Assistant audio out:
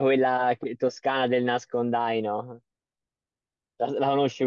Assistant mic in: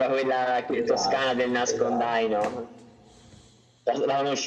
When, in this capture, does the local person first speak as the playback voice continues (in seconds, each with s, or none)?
0.7 s